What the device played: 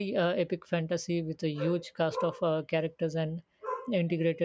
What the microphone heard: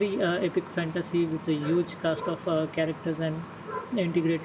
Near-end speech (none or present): none